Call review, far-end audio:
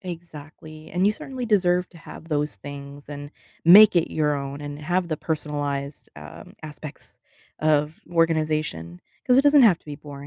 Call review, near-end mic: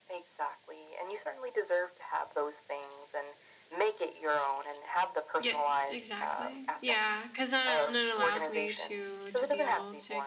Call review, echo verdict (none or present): present